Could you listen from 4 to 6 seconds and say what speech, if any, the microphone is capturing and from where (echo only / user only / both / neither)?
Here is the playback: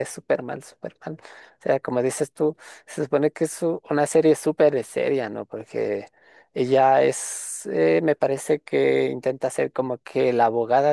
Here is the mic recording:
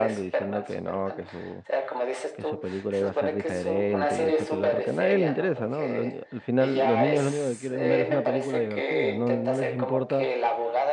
both